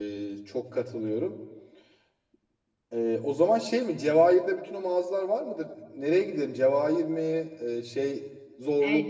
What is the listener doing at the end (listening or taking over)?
taking over